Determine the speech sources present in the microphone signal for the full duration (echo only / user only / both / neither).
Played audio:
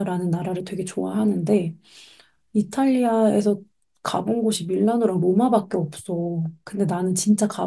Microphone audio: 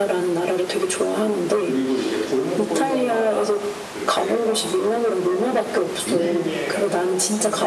both